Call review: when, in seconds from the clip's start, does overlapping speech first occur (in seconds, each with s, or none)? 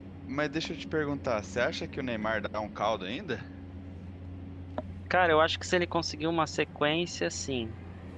none